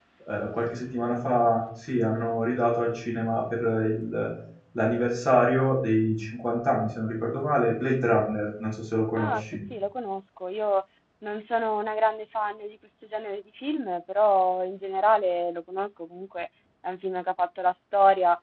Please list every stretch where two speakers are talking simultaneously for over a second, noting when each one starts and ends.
none

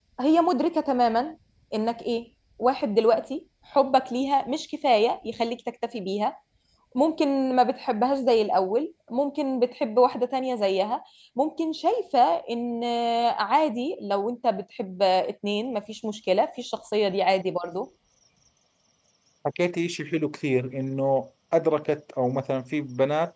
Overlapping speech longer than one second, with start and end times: none

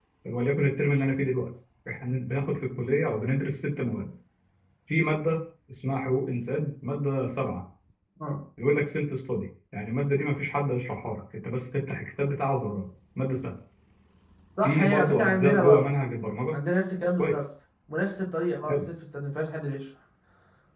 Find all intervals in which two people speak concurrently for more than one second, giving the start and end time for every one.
14.6-15.9

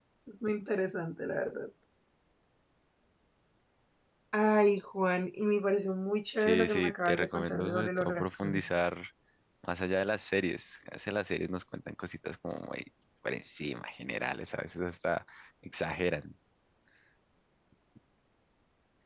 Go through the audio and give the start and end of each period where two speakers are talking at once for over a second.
6.4-8.6

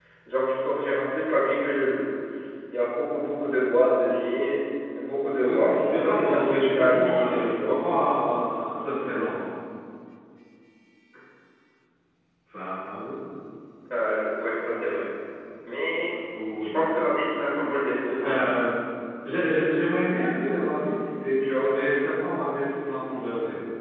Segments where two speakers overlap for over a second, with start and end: 5.4-7.8

